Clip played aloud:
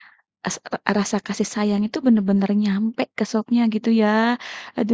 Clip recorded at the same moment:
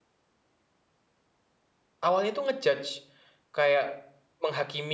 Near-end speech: present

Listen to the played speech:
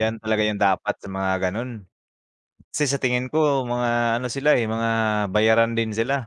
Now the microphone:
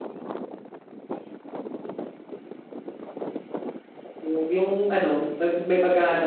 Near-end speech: present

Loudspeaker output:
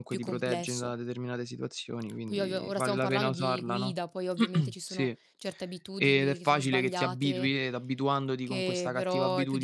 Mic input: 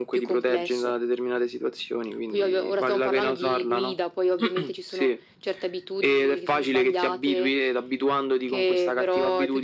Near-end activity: none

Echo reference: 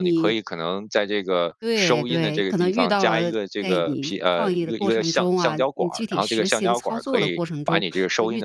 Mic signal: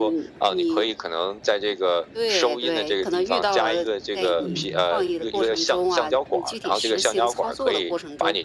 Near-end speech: present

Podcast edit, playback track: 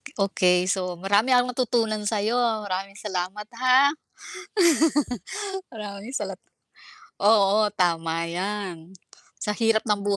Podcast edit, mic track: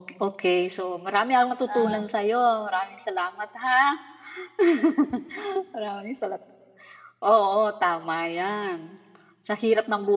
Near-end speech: present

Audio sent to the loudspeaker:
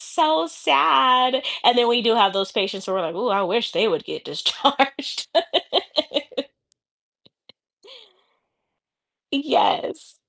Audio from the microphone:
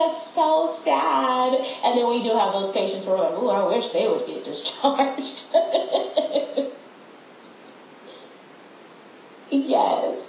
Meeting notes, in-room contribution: none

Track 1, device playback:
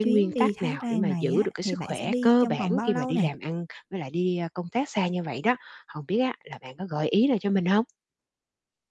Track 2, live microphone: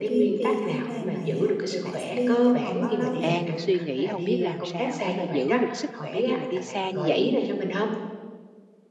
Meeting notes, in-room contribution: present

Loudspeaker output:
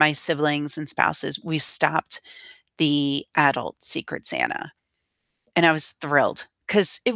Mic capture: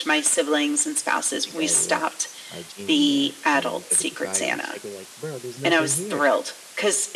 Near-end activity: present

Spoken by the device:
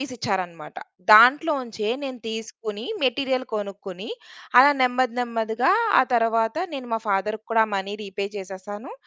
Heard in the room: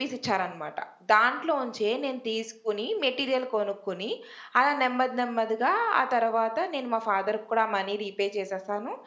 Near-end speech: none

